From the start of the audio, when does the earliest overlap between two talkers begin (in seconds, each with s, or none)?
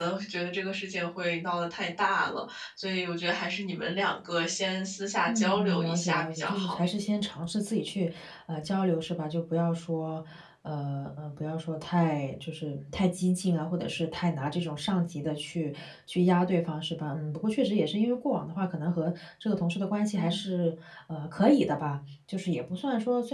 5.3 s